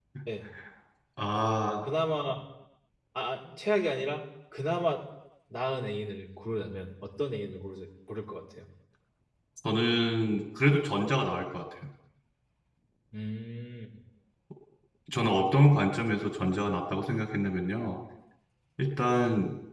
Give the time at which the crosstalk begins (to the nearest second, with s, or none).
none